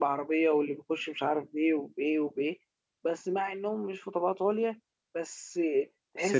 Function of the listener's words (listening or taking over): listening